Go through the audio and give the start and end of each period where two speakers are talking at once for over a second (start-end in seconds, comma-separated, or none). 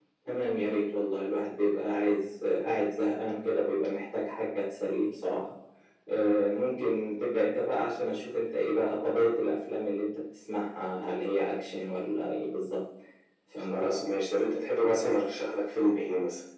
none